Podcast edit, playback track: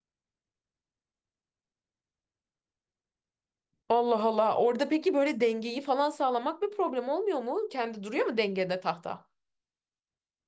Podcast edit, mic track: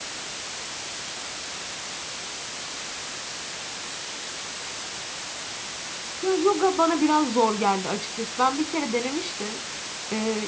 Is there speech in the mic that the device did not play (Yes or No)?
Yes